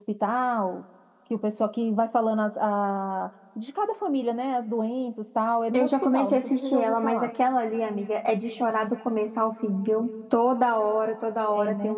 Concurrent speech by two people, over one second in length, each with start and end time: 5.7-7.3

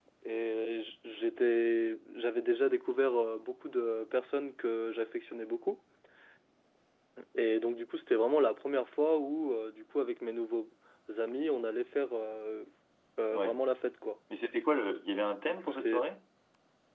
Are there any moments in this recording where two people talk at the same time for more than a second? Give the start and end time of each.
none

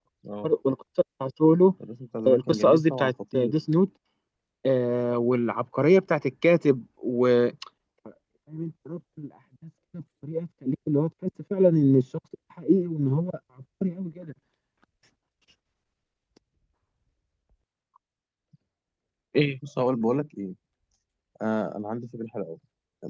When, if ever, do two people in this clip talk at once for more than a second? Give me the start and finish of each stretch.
2.3-3.5

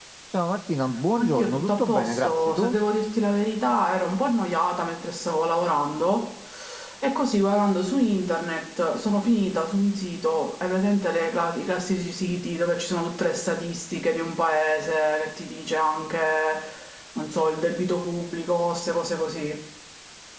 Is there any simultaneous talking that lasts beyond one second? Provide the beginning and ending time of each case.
1.2-2.7

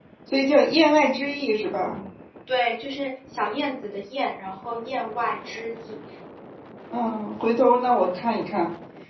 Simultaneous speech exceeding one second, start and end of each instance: none

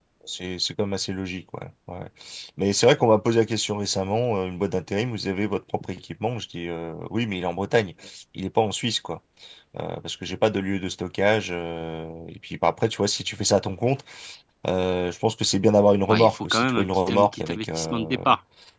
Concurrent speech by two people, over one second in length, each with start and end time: 16.1-18.1

